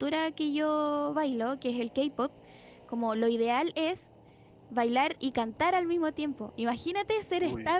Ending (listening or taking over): listening